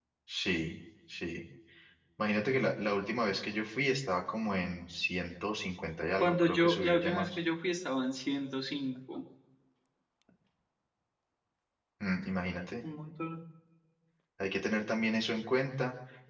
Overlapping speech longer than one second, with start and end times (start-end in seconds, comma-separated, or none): 6.2-7.4